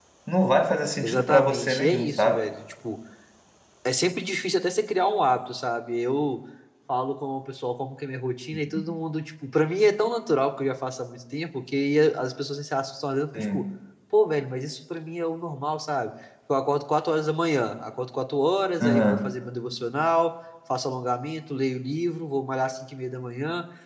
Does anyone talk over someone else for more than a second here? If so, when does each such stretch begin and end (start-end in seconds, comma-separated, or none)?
1.0-2.4